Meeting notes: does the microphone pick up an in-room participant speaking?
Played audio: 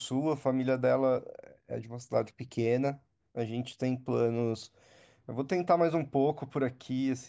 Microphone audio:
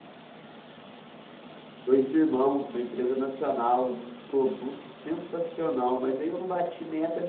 Yes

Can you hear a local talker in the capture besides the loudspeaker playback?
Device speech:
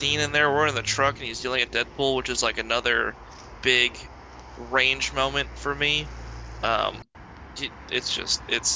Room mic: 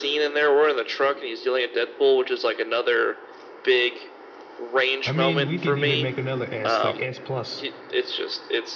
Yes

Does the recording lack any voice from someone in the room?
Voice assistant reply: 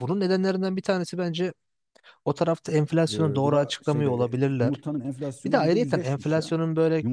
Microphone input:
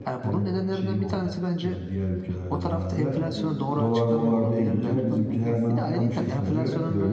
No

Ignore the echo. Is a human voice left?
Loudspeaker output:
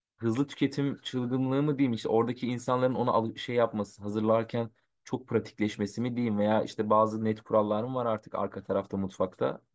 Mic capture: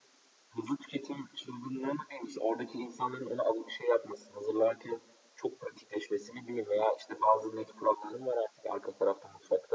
No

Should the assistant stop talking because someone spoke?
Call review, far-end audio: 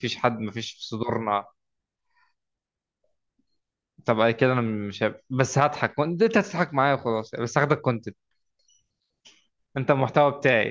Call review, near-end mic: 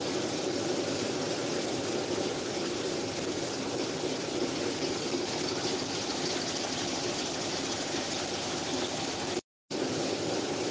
No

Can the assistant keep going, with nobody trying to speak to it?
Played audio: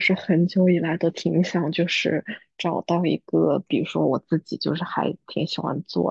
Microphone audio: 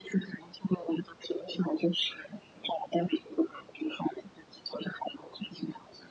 Yes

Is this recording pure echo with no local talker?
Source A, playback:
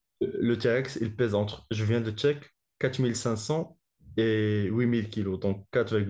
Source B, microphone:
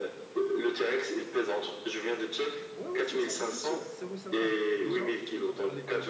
No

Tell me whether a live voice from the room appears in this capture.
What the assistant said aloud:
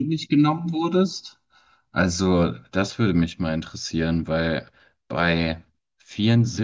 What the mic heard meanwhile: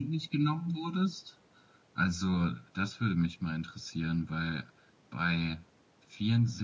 No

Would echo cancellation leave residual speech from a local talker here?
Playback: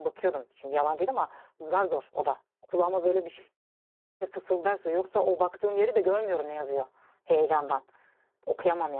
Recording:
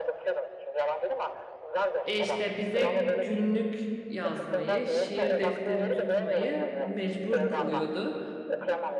Yes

